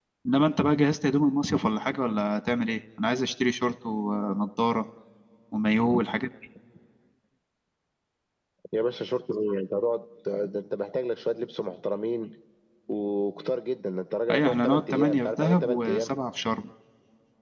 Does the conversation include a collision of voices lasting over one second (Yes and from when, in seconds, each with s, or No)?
Yes, from 14.3 s